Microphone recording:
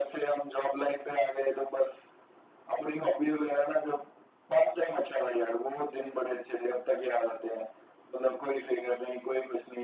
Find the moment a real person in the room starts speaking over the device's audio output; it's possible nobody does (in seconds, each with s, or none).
none